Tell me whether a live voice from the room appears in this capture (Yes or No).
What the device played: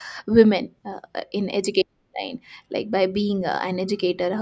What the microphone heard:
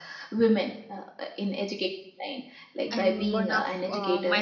Yes